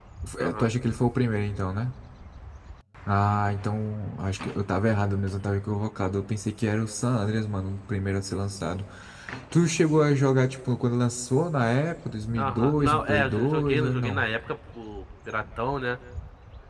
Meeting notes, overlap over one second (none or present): present